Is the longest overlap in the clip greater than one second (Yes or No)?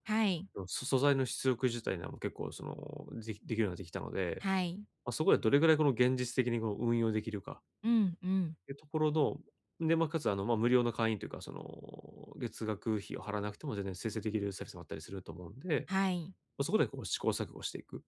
No